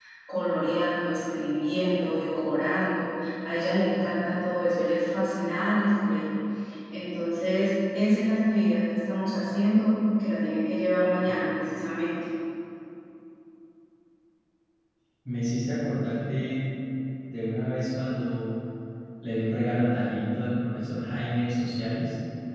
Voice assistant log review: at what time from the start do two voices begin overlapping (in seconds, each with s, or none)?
none